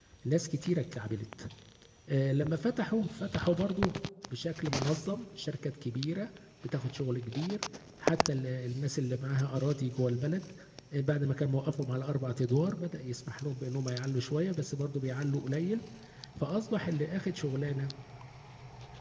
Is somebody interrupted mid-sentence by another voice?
No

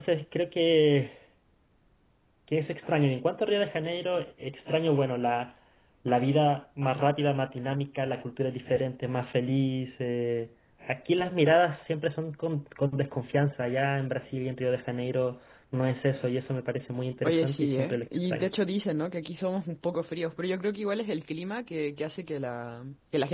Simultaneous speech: Yes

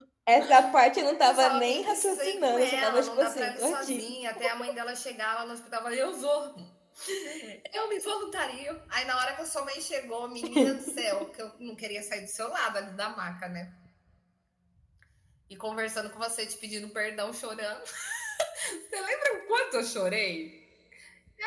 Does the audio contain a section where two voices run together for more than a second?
Yes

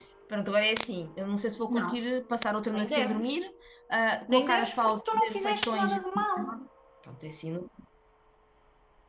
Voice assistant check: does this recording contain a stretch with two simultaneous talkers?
Yes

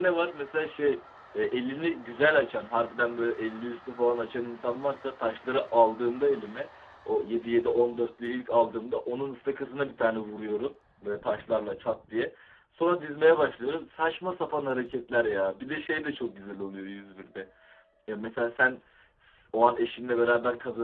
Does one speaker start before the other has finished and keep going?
No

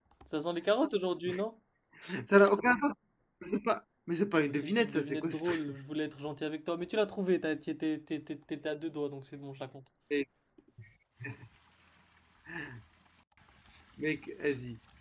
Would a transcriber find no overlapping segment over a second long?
No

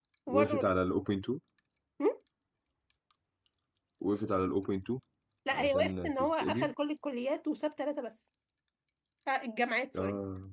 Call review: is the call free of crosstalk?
No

